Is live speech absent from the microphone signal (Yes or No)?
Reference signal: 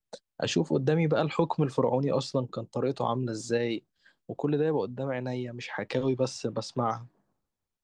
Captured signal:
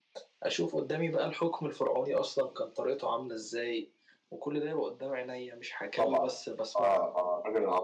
No